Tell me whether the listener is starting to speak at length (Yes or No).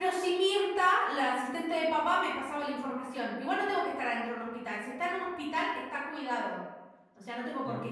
Yes